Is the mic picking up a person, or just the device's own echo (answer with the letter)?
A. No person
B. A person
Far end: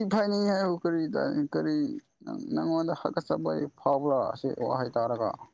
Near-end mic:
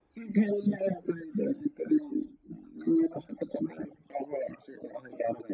A